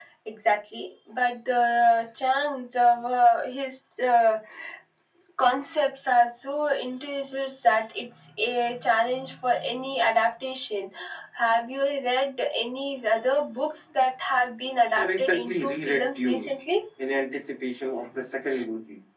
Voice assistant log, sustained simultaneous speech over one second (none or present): present